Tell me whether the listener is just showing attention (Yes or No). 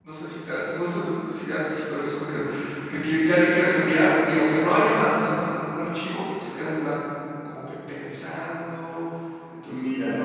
No